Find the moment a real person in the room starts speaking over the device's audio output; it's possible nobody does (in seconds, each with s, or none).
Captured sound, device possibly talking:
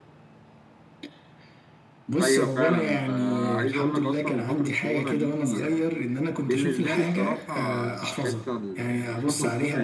2.2 s